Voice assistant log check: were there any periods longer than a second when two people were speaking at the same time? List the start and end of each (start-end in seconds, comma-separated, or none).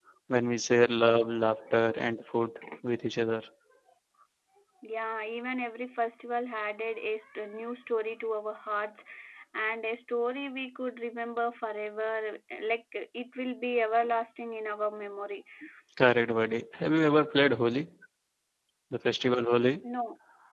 none